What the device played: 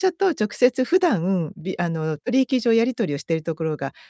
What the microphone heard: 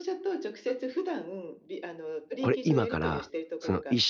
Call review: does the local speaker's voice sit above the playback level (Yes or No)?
Yes